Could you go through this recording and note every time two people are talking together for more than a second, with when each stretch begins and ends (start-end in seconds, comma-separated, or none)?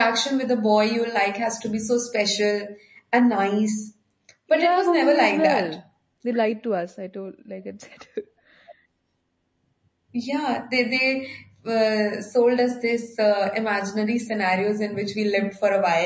4.5-5.8